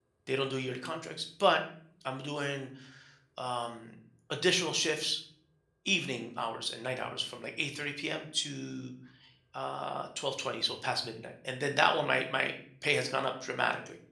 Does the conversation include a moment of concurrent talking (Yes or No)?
No